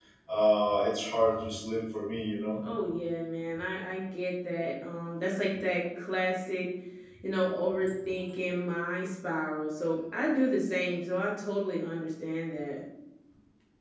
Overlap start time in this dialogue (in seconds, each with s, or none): none